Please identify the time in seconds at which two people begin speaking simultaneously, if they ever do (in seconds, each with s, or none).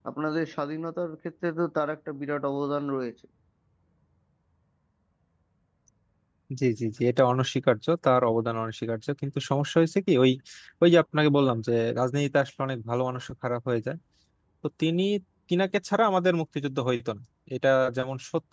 none